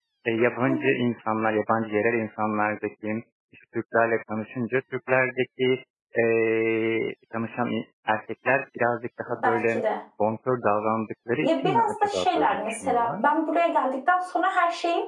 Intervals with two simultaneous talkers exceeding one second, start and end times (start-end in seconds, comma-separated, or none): 11.4-13.2